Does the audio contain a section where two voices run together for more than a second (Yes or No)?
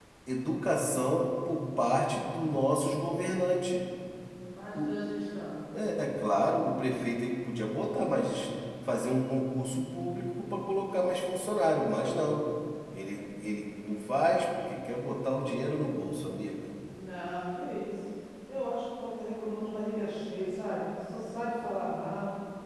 No